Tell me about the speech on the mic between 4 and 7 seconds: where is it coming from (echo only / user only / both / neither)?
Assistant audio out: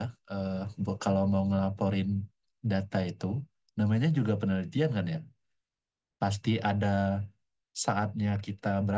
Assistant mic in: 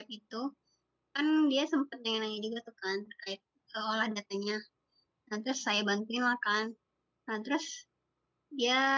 user only